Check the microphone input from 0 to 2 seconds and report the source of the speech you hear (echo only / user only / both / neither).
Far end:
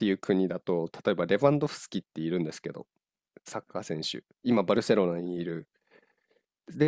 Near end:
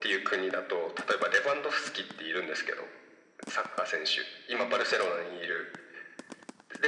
echo only